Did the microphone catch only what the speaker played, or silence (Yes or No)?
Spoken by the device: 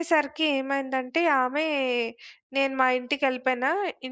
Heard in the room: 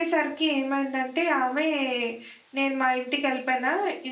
Yes